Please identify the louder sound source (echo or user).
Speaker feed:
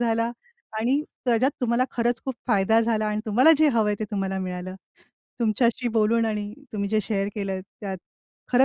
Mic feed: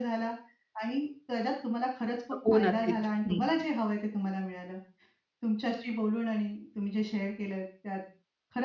user